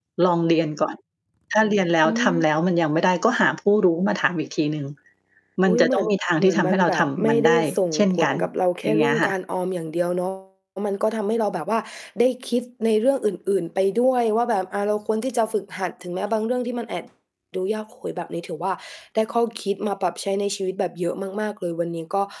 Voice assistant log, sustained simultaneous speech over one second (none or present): present